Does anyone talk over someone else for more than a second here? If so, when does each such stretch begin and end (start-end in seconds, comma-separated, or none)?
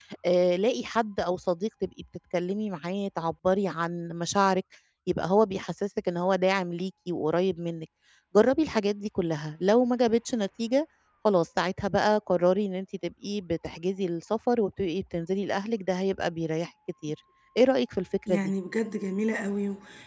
none